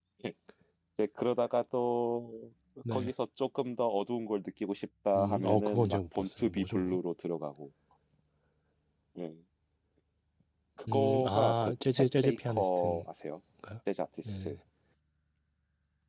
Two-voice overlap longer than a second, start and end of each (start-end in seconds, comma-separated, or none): 5.2-7.0, 10.9-13.0